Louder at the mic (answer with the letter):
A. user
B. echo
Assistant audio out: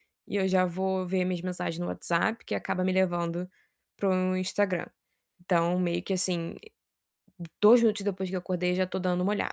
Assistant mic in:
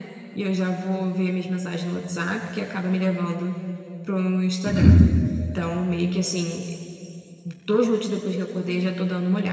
A